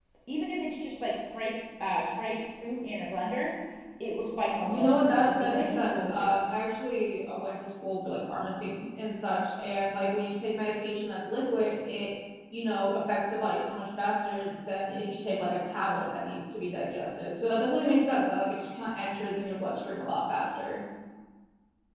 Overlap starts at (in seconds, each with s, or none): 4.7 s